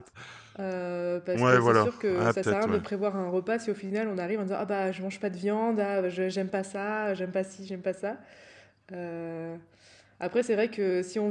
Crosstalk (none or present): present